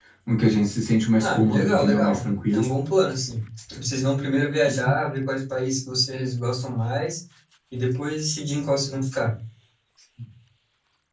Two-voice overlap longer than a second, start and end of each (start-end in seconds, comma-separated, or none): 1.2-2.6